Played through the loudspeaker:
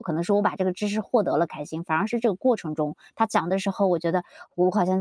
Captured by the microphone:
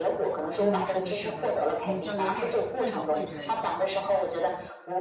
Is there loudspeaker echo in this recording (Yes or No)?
Yes